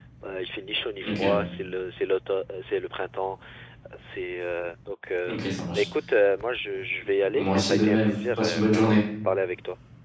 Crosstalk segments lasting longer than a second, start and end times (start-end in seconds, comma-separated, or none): 7.4-9.0